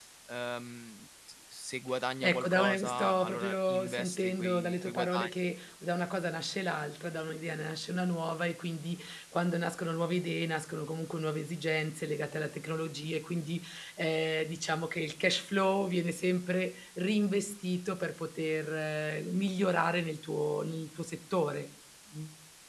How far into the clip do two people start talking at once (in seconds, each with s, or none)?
2.2 s